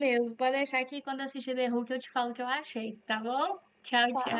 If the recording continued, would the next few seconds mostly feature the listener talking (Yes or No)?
Yes